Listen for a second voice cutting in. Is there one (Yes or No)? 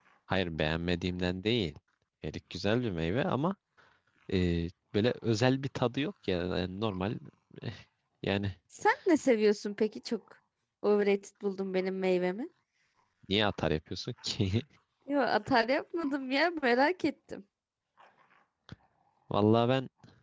No